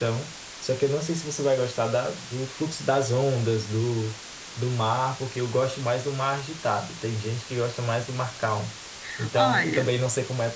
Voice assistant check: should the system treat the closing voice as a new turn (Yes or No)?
No